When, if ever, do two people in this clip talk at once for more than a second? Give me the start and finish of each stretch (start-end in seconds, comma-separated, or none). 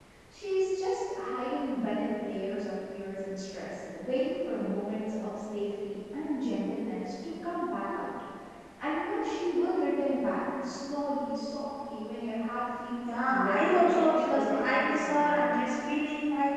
13.1-15.6